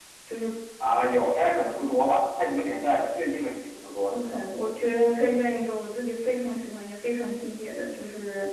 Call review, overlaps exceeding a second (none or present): none